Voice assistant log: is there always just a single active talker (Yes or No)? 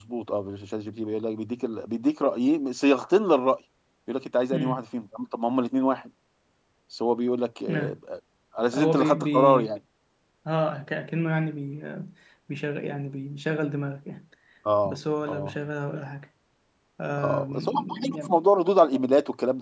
No